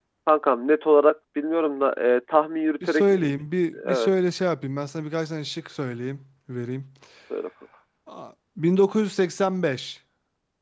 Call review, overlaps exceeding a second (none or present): none